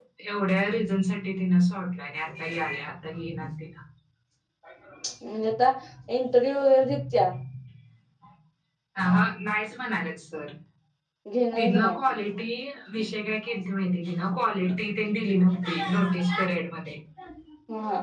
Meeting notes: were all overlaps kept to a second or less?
Yes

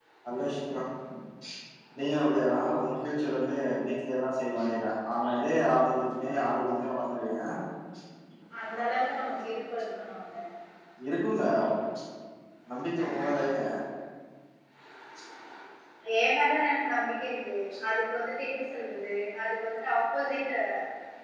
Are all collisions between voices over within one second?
Yes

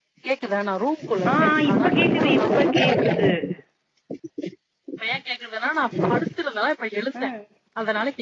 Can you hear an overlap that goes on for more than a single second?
Yes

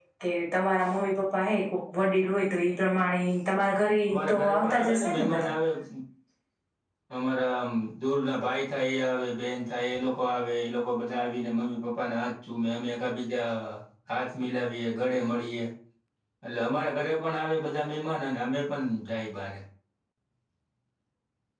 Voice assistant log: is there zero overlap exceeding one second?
No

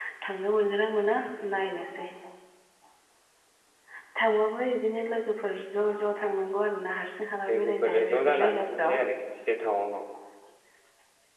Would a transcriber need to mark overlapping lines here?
Yes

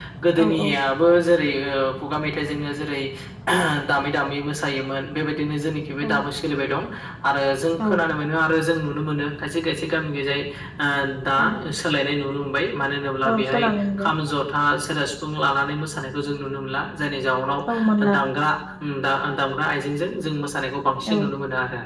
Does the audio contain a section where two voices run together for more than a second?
No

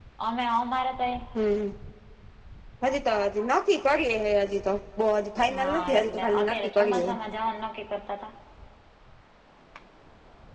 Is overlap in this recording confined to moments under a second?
No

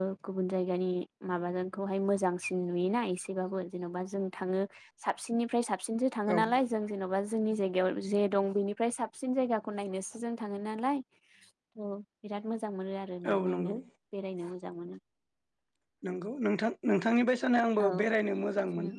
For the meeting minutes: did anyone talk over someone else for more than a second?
No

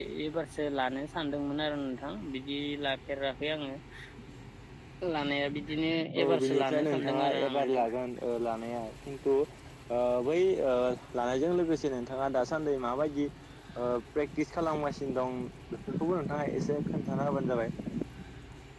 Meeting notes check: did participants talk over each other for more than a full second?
Yes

